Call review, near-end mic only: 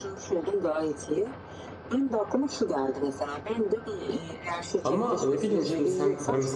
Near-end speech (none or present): present